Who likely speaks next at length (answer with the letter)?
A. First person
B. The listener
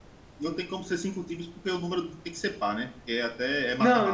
B